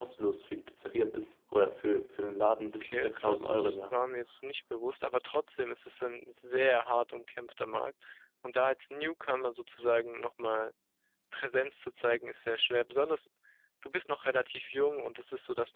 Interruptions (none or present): present